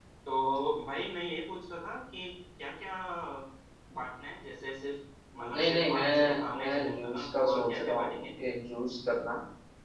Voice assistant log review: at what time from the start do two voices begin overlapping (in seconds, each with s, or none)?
5.5 s